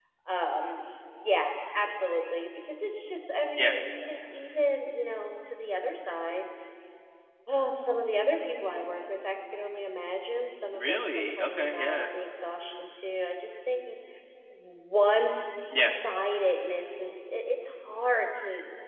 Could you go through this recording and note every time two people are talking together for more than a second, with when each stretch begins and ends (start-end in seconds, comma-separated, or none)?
10.7-12.0